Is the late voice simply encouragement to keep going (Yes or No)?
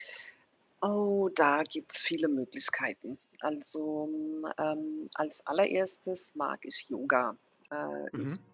Yes